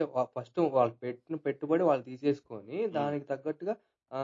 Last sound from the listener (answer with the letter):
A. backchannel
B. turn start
A